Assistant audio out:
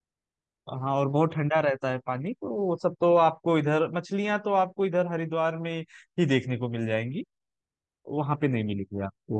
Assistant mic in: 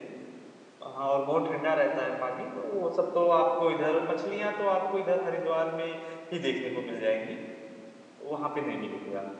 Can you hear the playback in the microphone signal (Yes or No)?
Yes